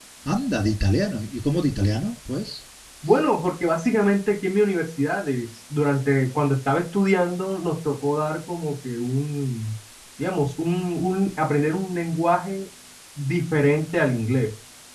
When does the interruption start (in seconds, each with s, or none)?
none